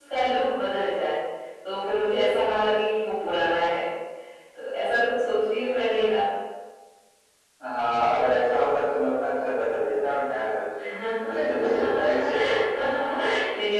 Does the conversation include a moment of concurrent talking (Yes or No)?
Yes